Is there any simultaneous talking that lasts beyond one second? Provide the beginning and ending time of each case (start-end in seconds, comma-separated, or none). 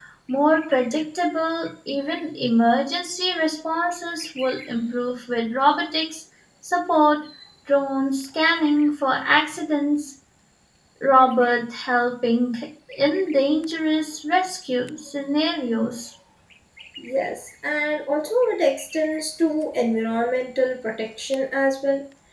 none